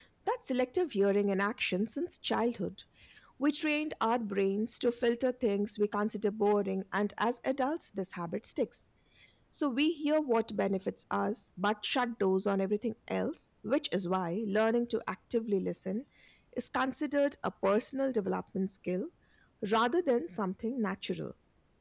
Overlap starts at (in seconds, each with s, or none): none